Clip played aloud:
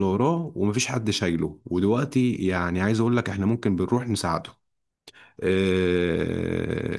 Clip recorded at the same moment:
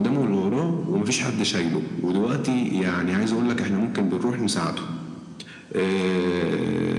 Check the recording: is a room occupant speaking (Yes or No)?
No